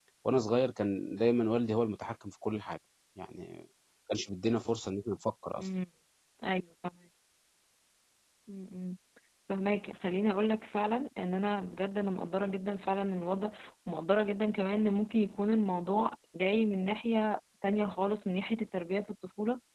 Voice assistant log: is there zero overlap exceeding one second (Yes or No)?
Yes